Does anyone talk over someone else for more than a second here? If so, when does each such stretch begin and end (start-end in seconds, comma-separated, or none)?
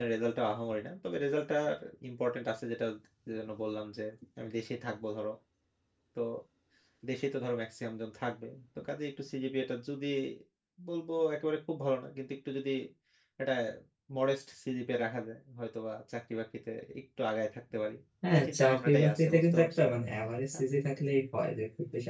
18.3-19.8